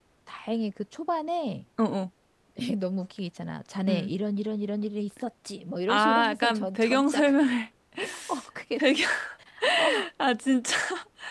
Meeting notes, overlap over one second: present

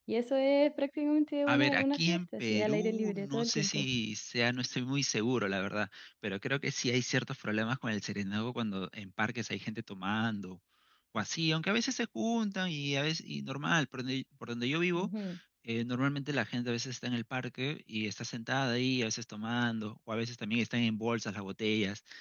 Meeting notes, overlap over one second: present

